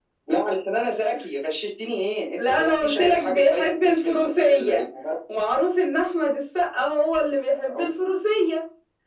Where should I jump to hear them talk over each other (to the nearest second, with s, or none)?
2 s